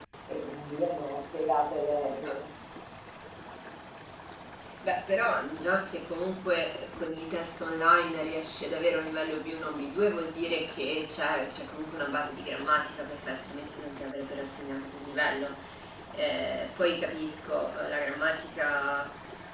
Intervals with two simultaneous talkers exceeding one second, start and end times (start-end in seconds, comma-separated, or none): none